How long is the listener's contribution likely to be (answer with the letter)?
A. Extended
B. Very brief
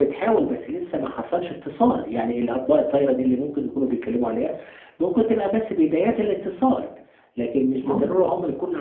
B